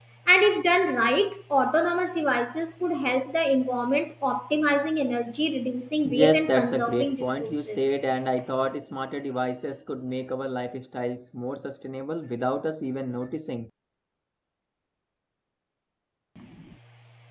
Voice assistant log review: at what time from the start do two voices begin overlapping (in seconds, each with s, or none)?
6.0 s